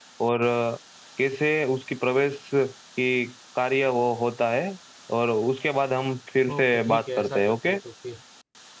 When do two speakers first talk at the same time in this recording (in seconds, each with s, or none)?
6.5 s